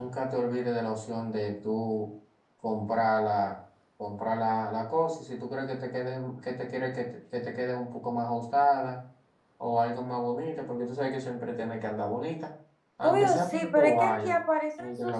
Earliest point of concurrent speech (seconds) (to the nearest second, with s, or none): 13 s